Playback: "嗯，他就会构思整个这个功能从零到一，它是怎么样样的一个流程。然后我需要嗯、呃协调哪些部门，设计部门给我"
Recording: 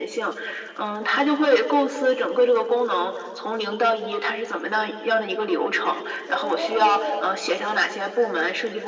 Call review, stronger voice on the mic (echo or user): echo